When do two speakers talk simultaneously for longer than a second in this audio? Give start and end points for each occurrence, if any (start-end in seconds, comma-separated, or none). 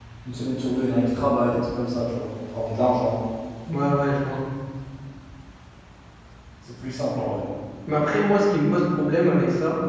none